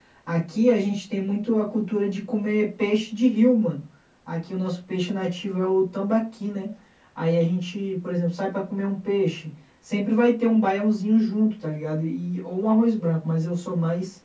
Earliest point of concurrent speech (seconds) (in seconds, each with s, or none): none